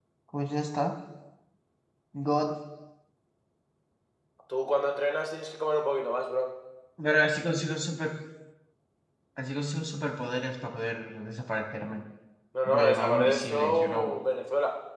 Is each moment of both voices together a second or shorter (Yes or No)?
No